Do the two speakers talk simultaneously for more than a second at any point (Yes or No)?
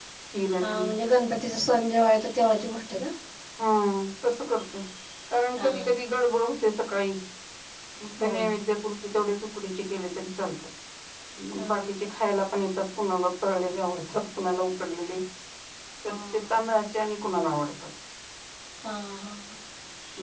No